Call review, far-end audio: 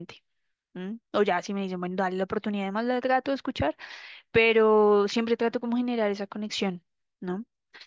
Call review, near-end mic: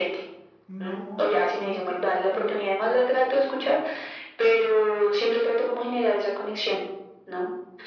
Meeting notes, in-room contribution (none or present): present